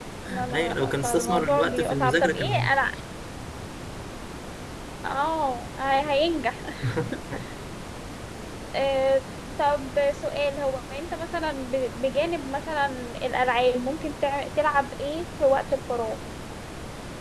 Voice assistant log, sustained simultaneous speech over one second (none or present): present